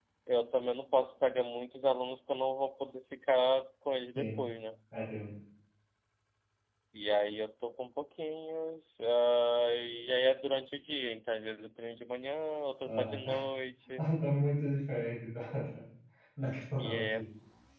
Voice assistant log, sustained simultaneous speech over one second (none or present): none